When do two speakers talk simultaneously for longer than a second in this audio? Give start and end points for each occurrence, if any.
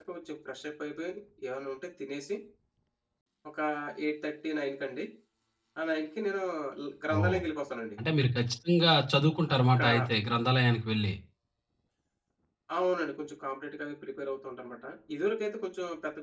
none

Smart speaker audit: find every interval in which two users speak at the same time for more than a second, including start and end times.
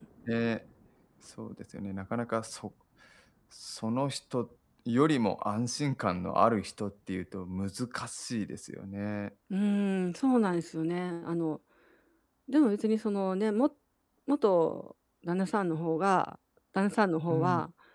none

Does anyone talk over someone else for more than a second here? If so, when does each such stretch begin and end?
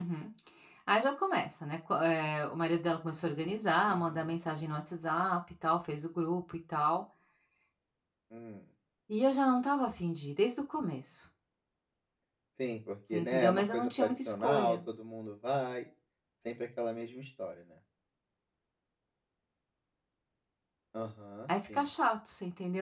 13.1-14.8

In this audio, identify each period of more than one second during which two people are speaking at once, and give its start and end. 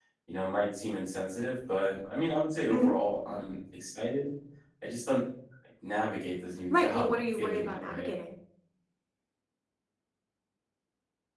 6.7-8.1

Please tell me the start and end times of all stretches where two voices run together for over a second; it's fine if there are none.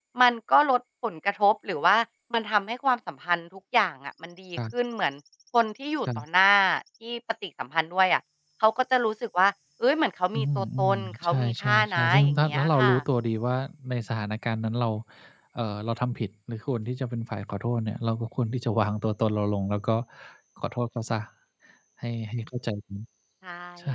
10.3-12.9

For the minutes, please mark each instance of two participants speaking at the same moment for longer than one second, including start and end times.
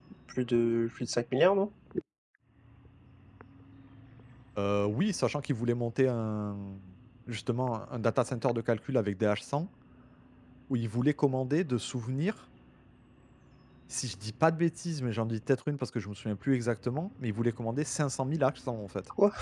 none

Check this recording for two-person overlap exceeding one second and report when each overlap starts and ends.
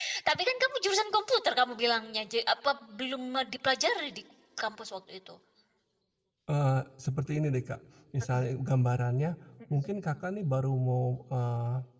none

